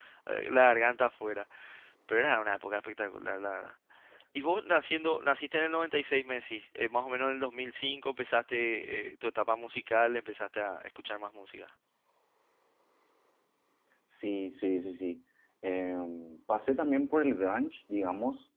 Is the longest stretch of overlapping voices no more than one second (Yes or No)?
Yes